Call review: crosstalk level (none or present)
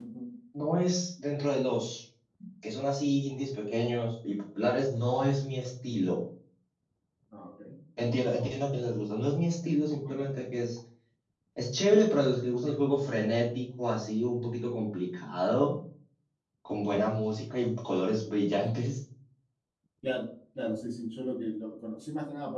none